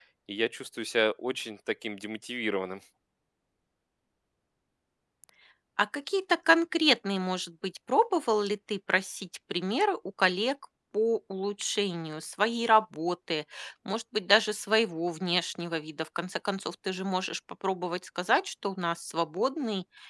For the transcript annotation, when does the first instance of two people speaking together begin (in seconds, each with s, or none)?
none